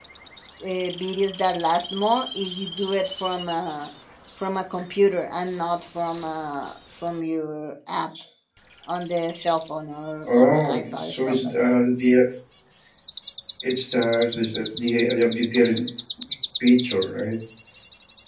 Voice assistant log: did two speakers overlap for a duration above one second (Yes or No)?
Yes